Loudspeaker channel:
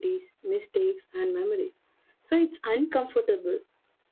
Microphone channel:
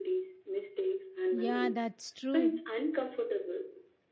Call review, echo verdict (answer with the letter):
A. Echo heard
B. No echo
A